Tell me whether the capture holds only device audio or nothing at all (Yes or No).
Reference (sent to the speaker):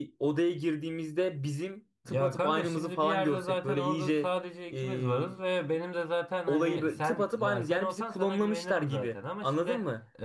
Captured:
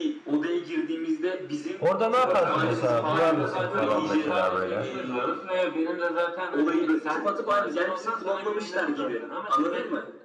No